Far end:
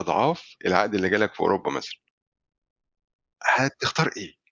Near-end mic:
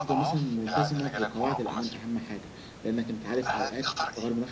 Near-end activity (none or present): present